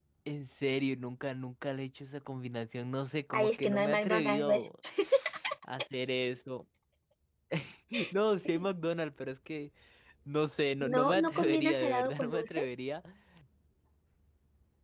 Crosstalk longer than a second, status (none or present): present